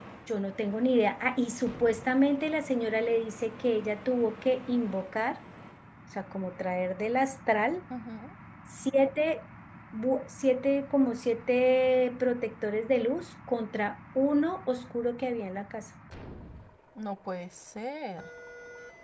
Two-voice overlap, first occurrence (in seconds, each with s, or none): none